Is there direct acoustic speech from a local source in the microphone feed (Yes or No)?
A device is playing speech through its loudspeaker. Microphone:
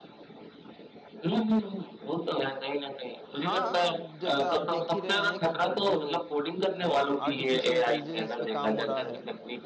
Yes